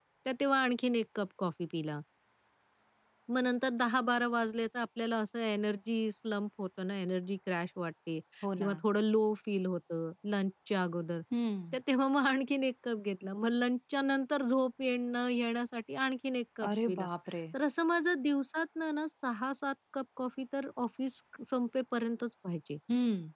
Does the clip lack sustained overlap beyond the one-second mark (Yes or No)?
Yes